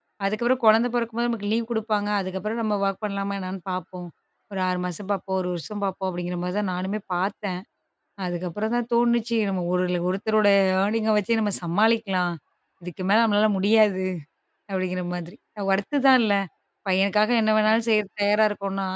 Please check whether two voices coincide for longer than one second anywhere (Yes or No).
No